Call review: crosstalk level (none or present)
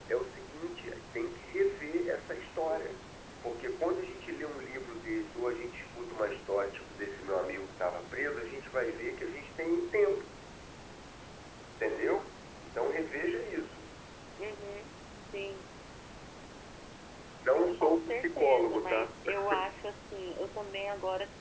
present